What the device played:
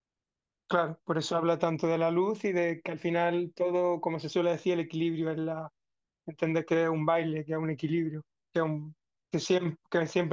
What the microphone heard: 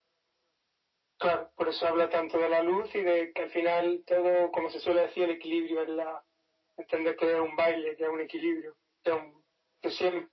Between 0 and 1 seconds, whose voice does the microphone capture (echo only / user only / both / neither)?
neither